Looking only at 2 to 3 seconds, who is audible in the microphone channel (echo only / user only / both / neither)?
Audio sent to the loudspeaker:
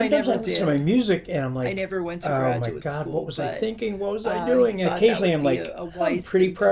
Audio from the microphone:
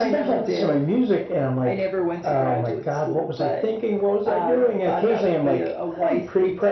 echo only